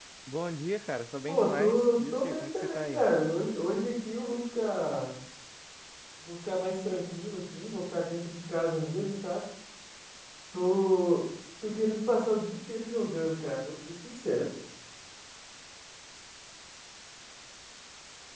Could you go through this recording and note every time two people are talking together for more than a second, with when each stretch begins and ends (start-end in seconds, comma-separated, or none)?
1.3-3.0